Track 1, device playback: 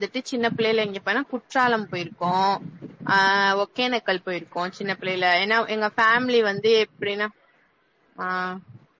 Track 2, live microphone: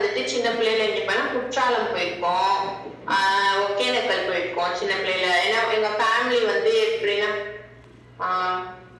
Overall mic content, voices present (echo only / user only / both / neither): echo only